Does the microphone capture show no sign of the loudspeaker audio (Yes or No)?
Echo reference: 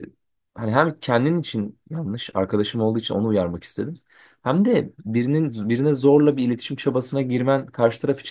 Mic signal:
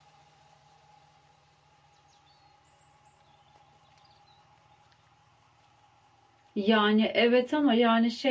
Yes